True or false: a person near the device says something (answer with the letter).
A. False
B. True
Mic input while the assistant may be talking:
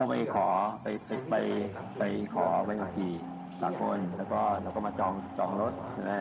B